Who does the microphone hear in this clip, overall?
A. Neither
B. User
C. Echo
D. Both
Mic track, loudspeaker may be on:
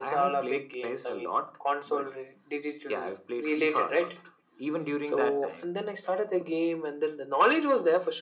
C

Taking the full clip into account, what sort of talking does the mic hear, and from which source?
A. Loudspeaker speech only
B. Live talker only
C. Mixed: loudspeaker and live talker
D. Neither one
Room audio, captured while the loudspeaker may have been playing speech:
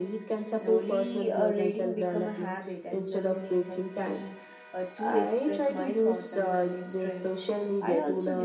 C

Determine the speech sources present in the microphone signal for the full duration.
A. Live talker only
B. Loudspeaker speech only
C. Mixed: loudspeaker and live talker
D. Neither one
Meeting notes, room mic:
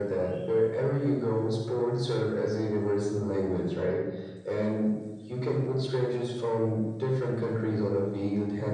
B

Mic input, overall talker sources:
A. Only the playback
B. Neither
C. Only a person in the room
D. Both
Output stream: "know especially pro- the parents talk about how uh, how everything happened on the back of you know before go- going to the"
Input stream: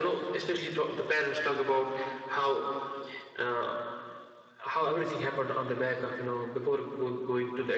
A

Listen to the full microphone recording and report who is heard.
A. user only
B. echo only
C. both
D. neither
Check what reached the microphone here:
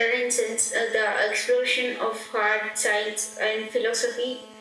B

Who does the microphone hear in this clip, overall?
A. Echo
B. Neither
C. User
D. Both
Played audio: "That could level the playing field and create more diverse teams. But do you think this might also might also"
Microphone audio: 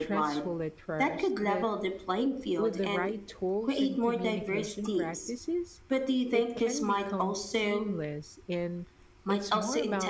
D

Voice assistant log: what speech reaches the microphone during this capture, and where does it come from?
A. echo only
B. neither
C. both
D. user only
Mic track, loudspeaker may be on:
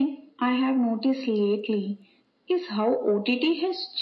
A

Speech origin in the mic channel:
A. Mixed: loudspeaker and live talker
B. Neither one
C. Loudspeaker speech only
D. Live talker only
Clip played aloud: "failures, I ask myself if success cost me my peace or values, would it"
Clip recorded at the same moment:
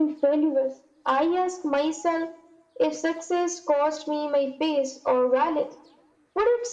C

